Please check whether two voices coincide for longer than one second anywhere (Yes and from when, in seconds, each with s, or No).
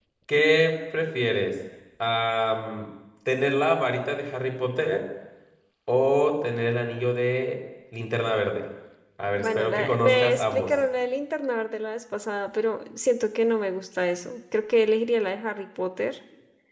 Yes, from 9.4 s